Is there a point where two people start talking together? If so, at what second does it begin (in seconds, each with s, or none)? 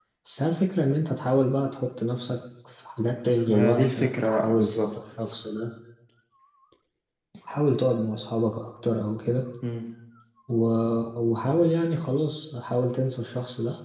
3.5 s